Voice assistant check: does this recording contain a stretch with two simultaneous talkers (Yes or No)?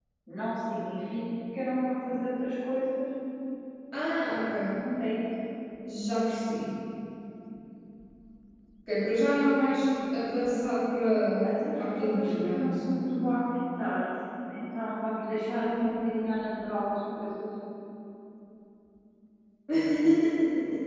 Yes